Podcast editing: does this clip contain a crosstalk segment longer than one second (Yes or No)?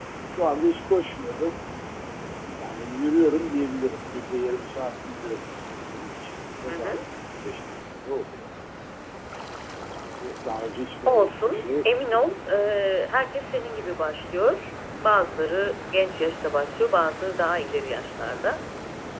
Yes